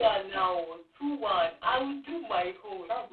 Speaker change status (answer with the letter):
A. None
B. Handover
B